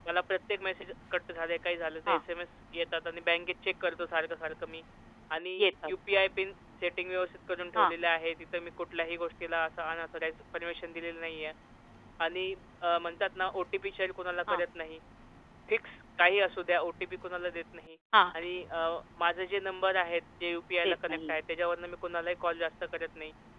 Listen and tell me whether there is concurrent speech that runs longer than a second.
No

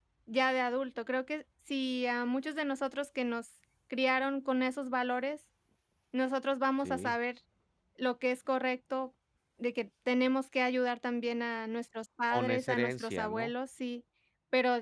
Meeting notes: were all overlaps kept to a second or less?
No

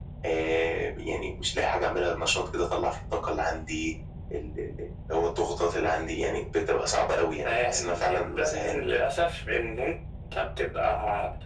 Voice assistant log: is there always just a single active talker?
No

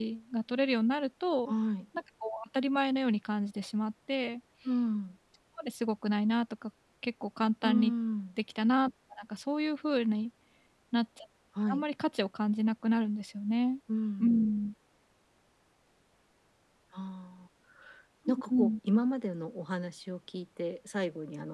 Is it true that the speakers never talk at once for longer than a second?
Yes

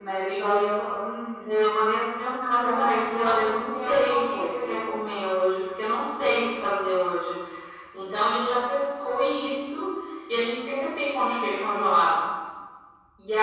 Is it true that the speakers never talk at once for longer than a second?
No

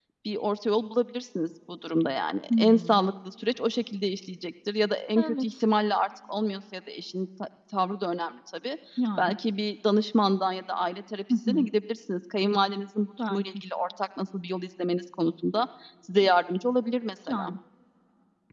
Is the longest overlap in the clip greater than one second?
No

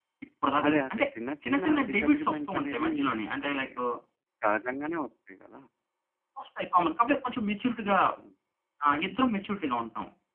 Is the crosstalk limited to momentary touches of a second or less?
No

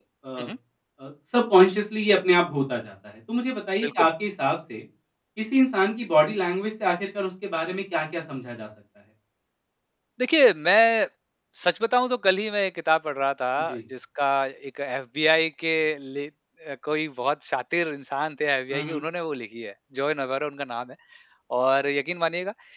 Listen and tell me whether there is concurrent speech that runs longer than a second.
No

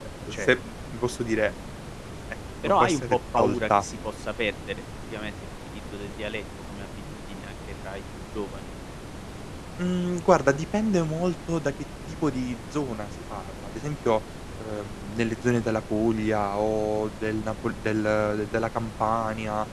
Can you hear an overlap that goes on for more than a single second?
Yes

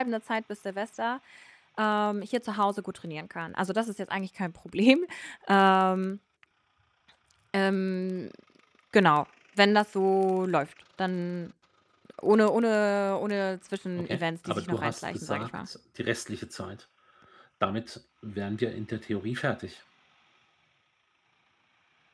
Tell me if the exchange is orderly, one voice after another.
No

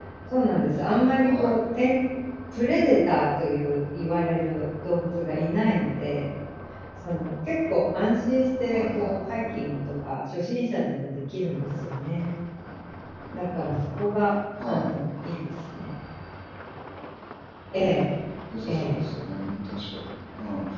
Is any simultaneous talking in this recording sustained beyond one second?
No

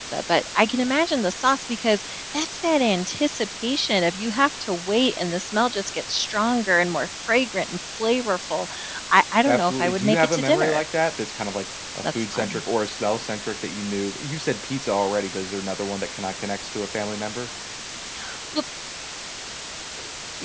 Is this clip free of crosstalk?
No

